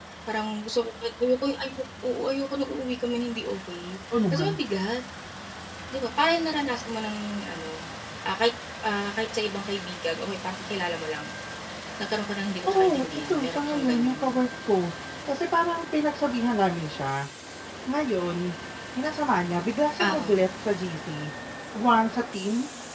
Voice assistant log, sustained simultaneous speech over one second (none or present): present